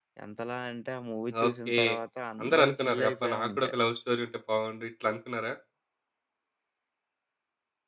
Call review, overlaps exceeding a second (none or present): present